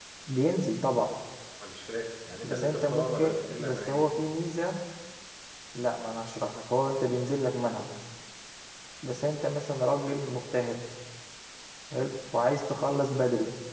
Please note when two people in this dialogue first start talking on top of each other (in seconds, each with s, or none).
2.4 s